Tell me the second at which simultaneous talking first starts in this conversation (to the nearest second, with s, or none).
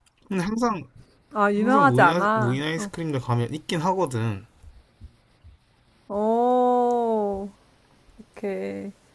2 s